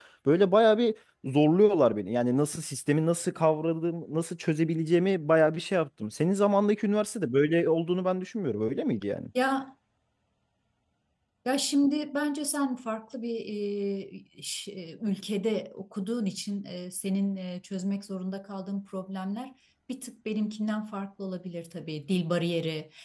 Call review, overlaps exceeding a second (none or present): none